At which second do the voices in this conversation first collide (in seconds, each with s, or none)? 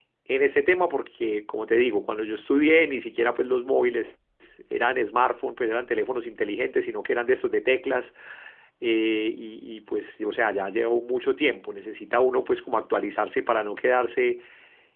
none